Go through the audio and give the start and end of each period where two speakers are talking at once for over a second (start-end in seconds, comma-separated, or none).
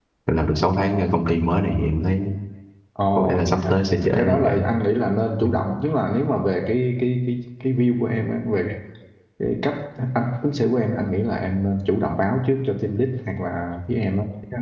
3.2-4.7